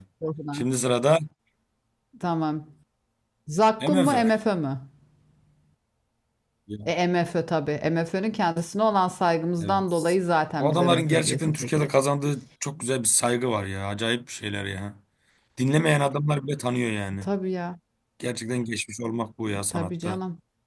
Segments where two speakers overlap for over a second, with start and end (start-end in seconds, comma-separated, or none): 10.6-11.9